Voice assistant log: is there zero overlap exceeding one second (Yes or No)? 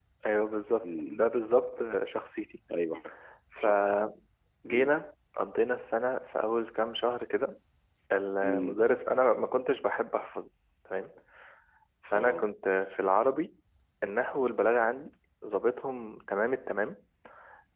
Yes